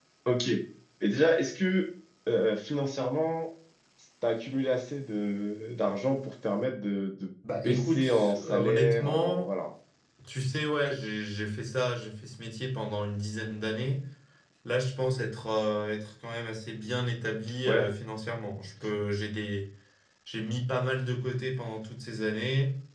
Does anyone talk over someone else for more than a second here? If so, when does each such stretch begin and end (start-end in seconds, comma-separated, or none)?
7.6-9.5